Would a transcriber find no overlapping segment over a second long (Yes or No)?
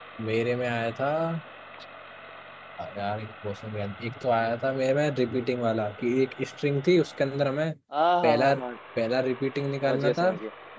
Yes